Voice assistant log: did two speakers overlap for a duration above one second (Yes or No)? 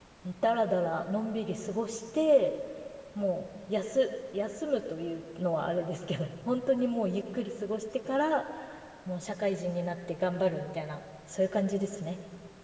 No